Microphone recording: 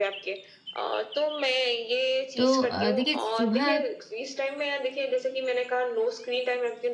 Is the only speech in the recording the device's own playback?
No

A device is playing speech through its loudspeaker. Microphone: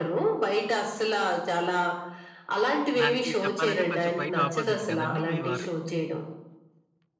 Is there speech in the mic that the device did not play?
Yes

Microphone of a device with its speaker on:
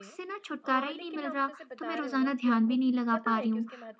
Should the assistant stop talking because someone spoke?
Yes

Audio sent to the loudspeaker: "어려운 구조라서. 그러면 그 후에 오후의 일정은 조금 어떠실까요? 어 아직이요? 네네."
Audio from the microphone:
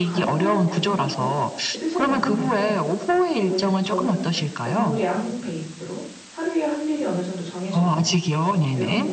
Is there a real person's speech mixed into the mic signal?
Yes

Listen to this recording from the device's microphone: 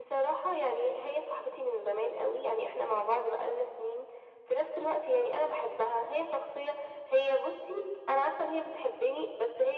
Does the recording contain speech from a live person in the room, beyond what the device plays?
No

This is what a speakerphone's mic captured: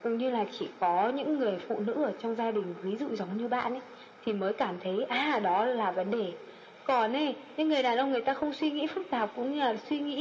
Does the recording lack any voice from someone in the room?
Yes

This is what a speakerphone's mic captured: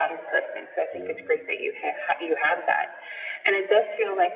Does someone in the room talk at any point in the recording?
Yes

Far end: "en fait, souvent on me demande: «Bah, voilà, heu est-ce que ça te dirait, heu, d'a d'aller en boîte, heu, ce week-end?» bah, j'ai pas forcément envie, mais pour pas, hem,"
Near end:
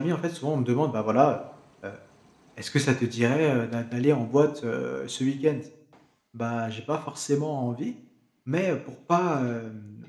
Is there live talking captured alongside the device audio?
No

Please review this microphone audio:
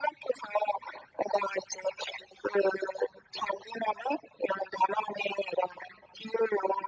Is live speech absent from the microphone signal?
Yes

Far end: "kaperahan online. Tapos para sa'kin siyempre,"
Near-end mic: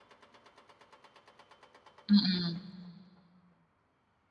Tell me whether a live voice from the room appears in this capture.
Yes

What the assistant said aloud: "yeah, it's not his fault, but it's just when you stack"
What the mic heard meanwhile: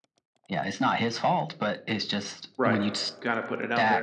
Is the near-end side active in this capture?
Yes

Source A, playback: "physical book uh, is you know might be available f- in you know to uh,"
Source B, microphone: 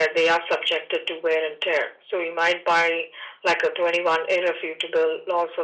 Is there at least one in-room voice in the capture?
Yes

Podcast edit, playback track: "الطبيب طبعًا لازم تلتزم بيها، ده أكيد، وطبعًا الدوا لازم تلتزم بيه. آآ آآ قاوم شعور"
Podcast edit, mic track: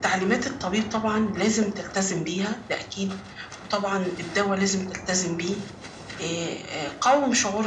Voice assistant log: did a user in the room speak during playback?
No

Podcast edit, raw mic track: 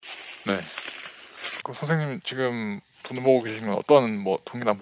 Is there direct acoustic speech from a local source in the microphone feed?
Yes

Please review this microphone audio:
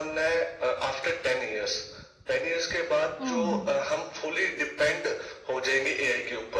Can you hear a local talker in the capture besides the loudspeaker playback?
Yes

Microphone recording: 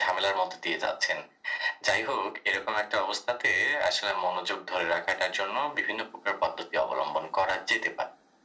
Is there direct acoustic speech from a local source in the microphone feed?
No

